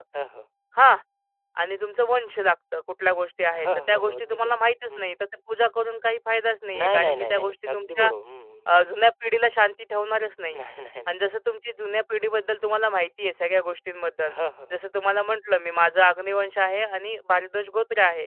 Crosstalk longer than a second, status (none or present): present